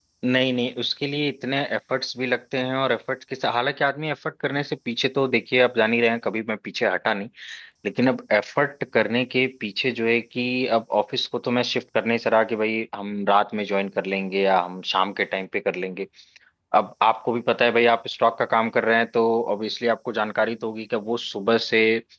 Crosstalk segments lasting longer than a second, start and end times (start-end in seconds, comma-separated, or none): none